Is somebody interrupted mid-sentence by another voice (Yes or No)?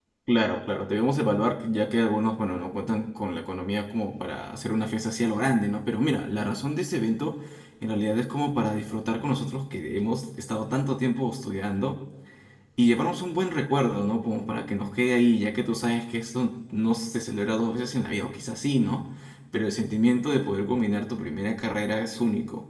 No